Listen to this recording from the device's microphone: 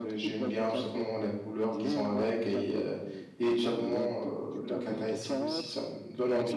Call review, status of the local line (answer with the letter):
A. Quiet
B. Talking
B